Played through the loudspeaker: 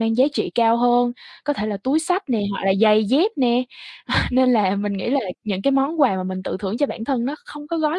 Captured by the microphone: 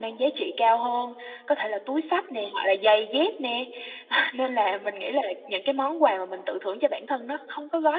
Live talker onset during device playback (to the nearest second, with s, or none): none